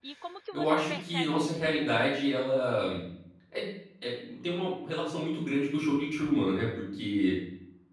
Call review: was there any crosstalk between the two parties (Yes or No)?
Yes